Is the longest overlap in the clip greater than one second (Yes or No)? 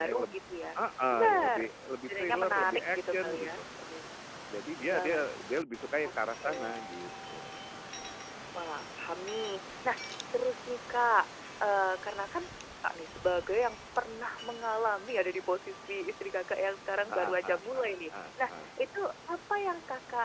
Yes